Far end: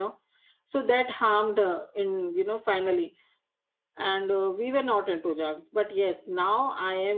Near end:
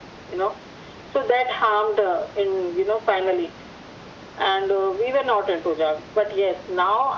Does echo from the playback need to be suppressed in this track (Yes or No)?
Yes